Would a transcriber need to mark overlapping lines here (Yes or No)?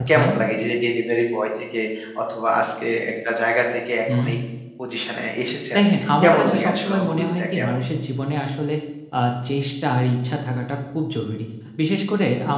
Yes